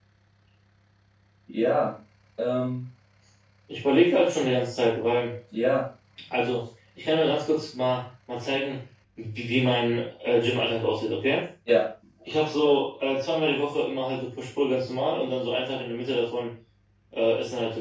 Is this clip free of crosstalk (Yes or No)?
Yes